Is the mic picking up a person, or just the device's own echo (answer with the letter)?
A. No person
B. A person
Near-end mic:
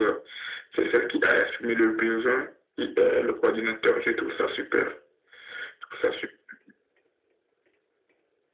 A